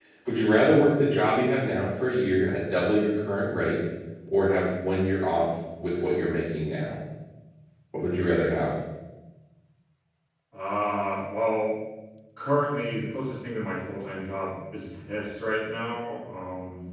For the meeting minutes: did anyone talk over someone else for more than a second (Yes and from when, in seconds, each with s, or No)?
No